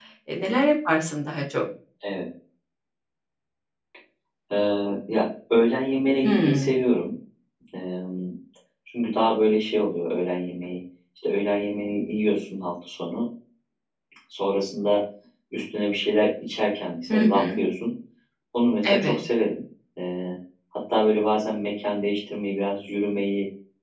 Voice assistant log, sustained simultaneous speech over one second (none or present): none